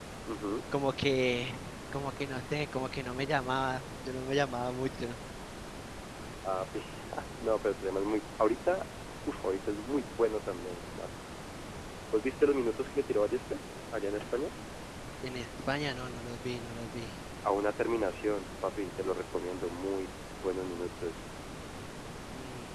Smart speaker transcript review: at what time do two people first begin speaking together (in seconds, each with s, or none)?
none